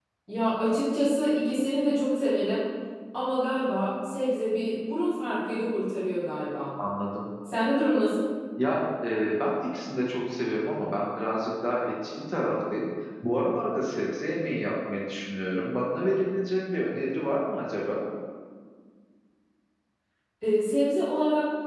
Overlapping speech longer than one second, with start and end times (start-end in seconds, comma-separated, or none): none